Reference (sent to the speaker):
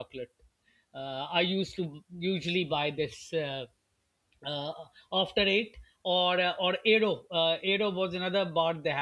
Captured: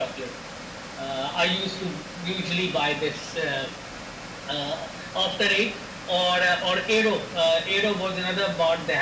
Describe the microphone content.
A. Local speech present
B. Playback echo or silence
B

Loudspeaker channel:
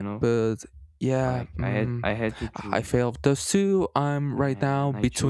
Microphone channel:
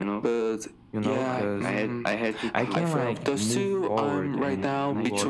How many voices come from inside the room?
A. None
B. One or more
B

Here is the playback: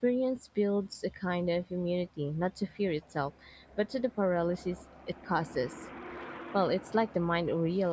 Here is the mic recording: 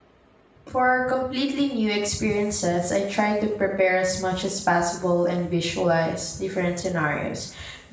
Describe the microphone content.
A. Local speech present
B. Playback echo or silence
A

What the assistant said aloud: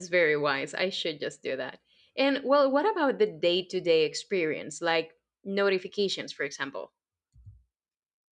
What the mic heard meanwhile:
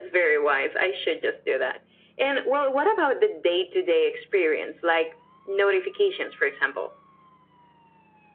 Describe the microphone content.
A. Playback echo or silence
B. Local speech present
A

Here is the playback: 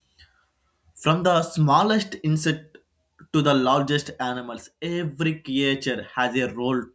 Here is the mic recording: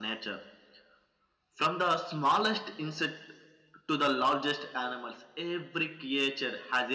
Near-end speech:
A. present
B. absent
B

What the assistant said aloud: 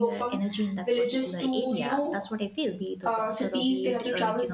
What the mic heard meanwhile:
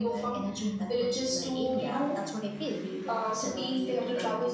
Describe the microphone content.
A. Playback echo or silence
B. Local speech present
A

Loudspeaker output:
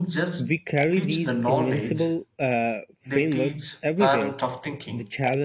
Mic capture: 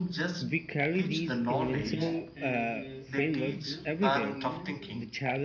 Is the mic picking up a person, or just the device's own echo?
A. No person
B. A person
B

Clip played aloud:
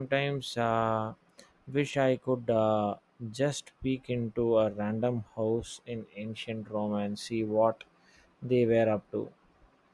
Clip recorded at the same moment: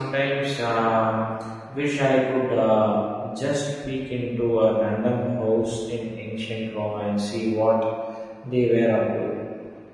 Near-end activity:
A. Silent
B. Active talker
A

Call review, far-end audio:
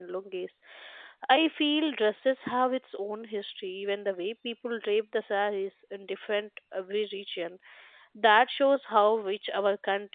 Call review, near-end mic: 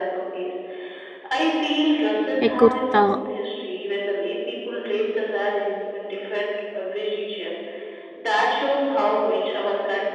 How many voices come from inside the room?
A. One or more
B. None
A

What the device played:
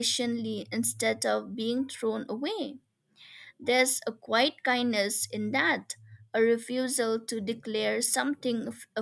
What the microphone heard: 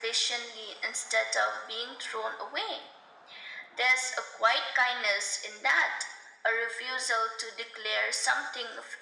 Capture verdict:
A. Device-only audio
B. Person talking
A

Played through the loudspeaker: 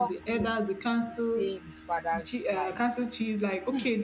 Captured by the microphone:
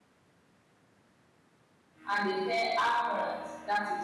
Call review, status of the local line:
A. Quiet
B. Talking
B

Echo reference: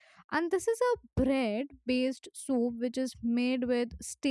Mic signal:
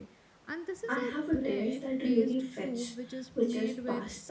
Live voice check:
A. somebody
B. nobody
A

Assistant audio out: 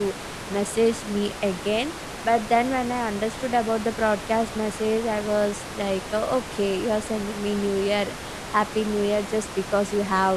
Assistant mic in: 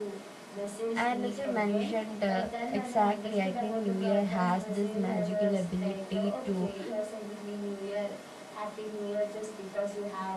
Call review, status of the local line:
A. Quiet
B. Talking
B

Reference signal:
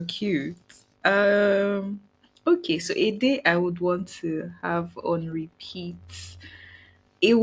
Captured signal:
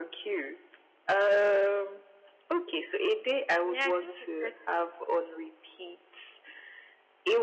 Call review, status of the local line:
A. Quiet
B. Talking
B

